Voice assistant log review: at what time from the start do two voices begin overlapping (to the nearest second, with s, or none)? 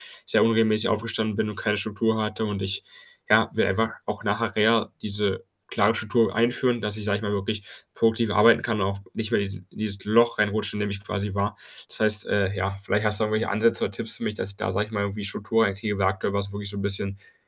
none